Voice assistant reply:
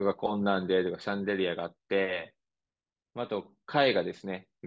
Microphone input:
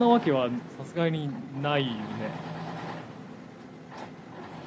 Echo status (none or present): none